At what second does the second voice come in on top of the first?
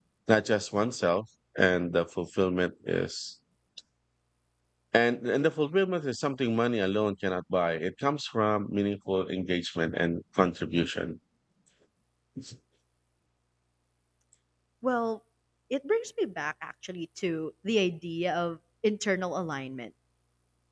none

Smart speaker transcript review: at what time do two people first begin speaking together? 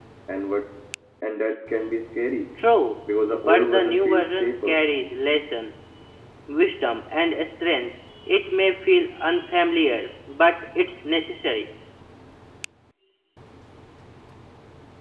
3 s

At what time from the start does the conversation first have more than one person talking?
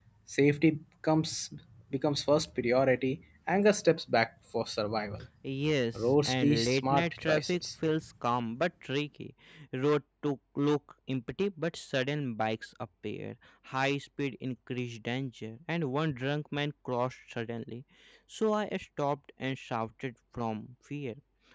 6 s

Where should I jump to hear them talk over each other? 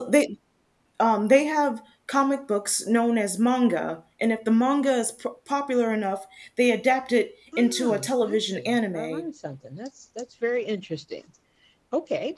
8 s

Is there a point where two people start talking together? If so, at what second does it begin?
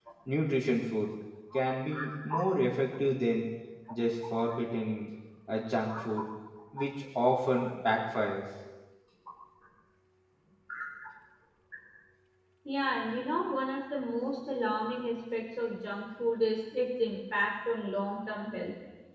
none

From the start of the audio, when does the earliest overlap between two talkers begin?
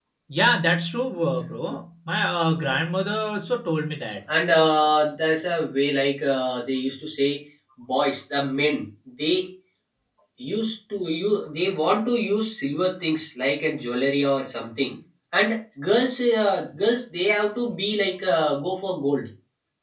none

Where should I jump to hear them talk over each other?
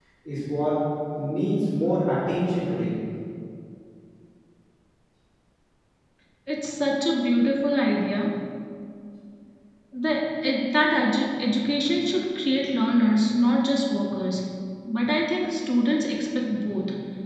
none

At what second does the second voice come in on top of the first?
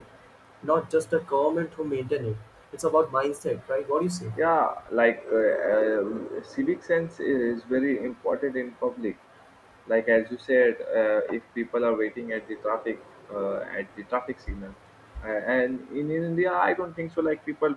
none

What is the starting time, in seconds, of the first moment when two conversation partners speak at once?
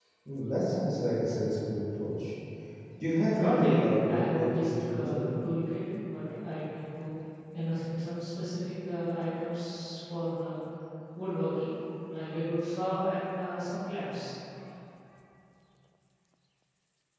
3 s

